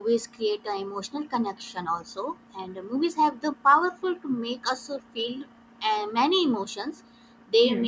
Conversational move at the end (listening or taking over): listening